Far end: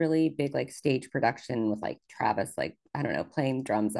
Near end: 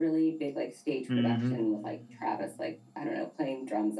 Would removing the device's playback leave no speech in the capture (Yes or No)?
No